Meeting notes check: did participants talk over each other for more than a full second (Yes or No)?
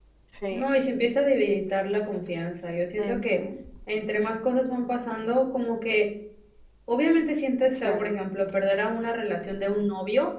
No